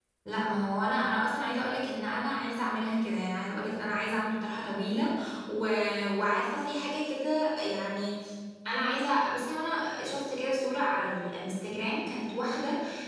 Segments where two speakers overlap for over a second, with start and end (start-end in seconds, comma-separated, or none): none